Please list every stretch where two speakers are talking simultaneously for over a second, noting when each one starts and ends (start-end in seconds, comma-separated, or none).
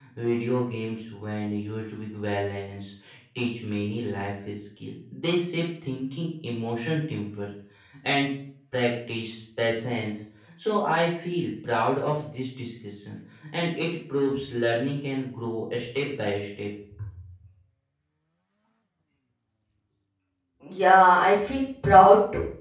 none